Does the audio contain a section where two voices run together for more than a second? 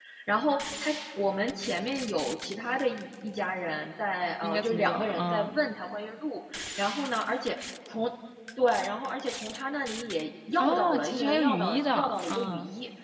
Yes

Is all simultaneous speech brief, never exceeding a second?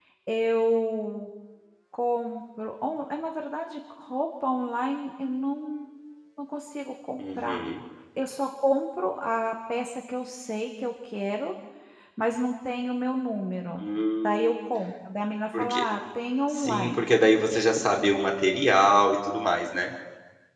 Yes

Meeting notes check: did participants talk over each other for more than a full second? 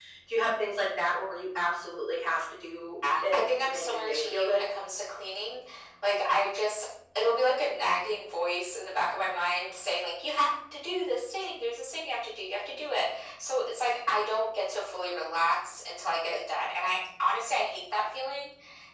Yes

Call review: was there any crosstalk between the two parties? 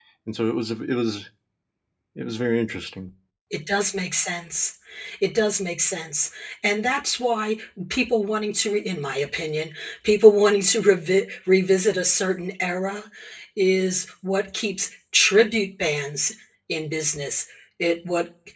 No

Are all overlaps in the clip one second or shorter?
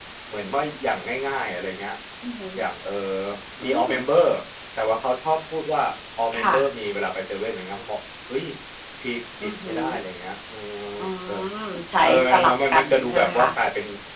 No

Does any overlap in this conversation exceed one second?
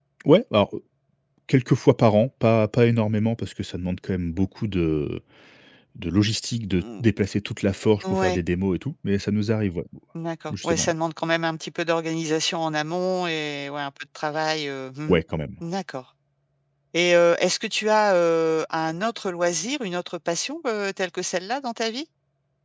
No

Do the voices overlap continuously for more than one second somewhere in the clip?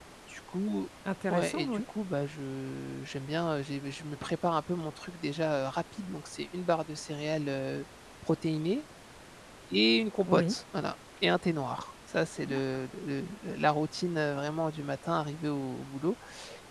No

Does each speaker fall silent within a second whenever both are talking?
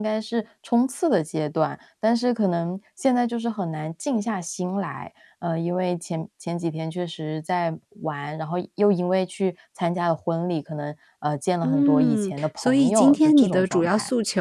No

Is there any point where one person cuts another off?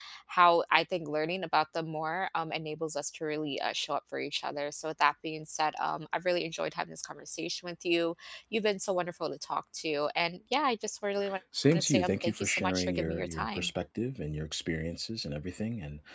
Yes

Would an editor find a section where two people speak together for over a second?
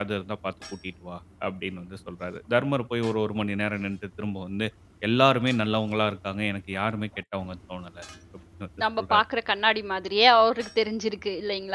No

